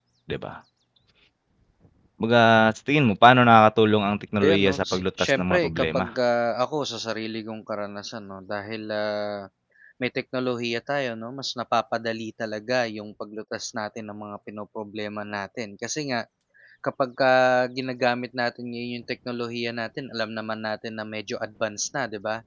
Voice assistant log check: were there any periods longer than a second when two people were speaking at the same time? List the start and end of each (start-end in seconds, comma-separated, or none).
4.4-6.0